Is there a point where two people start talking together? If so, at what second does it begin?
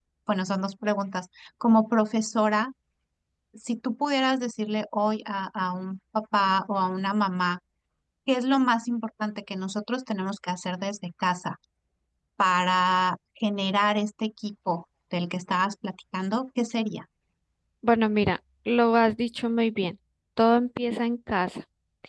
none

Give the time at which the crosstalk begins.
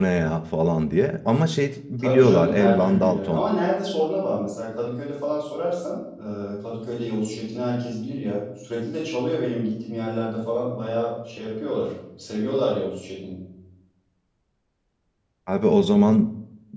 2.0 s

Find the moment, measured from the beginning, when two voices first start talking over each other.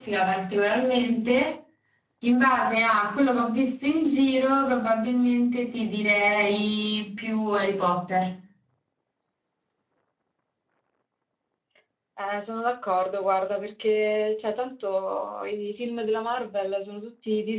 none

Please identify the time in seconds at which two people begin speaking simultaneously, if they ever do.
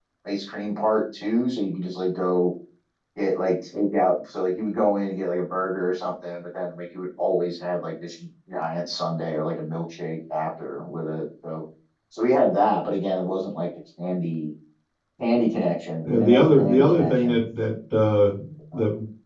16.0 s

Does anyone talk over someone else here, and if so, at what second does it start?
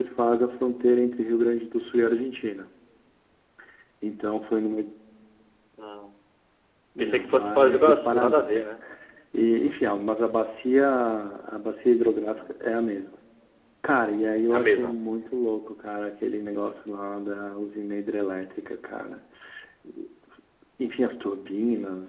7.0 s

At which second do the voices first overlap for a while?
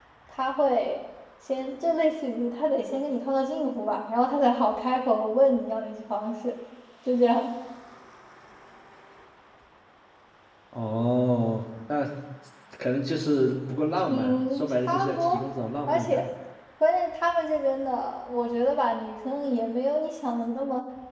14.1 s

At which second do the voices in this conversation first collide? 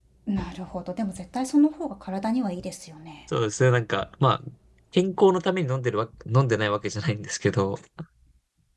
none

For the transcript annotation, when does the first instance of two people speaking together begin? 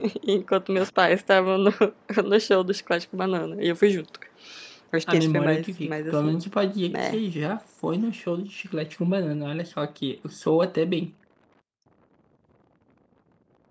5.1 s

